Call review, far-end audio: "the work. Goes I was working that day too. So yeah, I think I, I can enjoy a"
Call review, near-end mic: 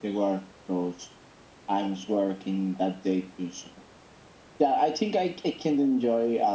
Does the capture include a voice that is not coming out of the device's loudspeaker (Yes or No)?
No